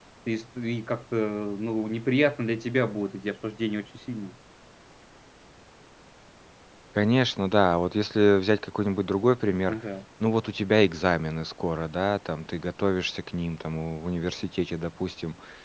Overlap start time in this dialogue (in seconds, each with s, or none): none